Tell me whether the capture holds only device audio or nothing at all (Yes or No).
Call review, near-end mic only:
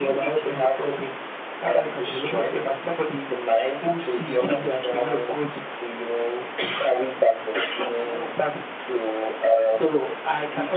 Yes